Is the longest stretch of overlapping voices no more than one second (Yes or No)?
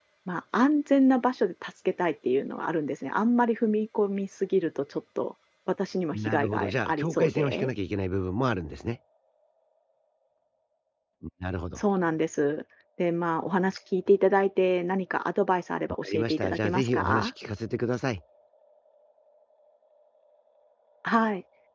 No